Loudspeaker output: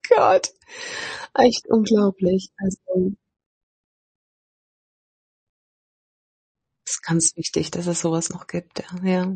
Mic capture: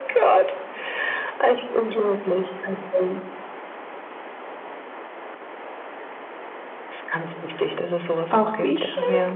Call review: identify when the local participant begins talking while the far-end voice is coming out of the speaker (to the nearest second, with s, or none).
8 s